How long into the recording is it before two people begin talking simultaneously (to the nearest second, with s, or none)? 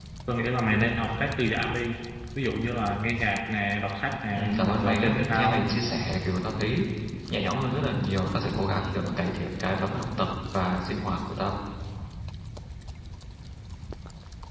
4 s